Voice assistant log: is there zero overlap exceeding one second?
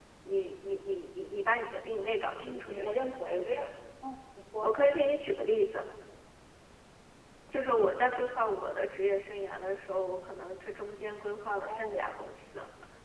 No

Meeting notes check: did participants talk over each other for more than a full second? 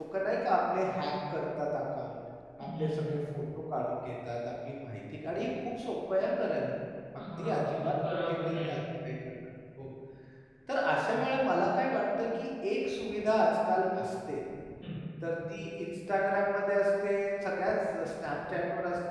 Yes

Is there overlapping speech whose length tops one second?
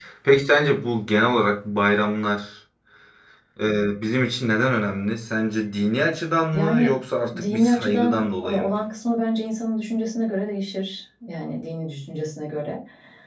Yes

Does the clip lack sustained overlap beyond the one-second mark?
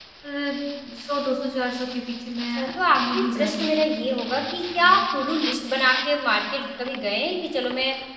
No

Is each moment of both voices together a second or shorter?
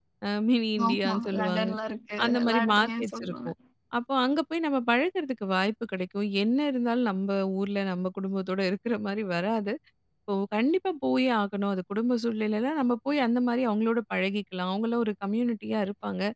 No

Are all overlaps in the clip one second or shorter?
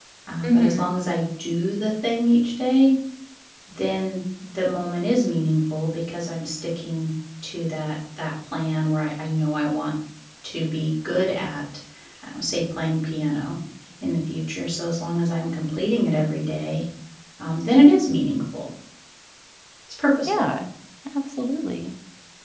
Yes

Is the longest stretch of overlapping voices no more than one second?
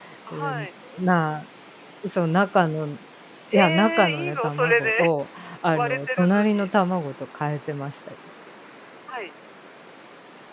No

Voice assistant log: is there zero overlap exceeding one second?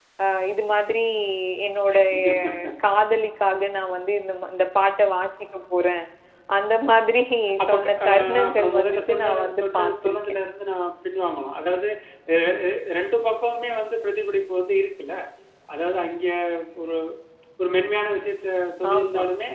No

